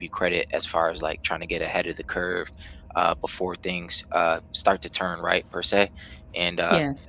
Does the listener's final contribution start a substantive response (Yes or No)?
No